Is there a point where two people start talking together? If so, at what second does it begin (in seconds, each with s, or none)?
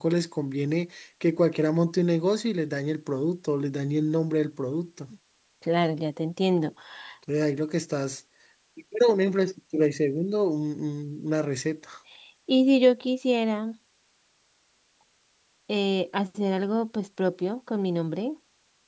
none